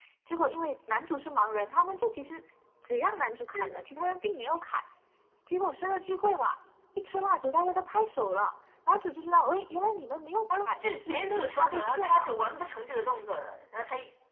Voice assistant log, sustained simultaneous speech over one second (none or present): present